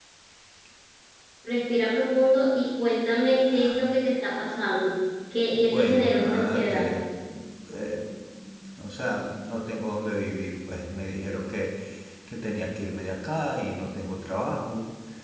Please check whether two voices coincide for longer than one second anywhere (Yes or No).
Yes